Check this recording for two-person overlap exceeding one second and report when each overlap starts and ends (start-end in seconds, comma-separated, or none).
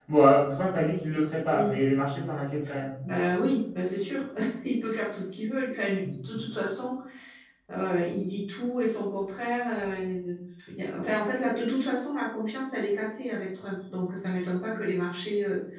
none